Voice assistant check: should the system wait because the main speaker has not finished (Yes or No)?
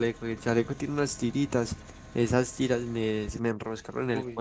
Yes